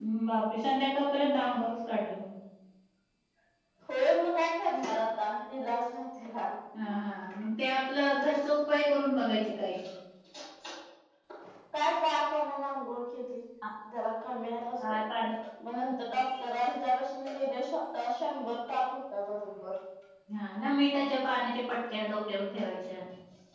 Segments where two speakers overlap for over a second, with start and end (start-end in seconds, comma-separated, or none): none